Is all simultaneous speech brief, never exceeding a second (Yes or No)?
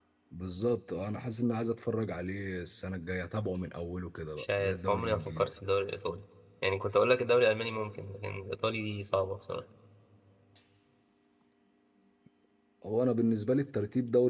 No